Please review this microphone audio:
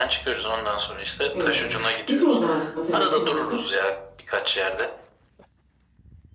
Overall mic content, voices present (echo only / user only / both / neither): both